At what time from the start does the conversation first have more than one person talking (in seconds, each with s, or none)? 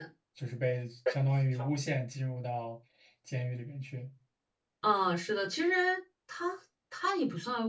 none